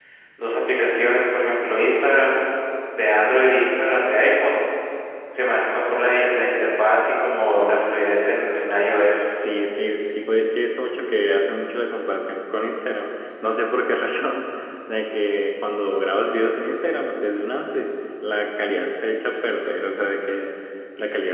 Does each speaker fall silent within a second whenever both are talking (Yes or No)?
Yes